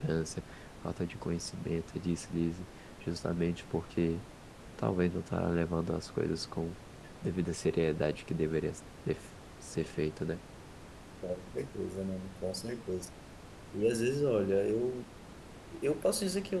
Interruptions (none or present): none